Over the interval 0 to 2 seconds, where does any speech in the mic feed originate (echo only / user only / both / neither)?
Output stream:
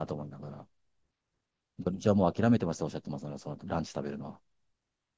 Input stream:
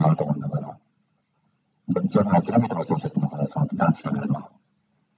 echo only